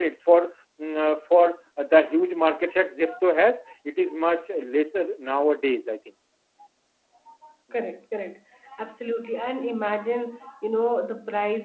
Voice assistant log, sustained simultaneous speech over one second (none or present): none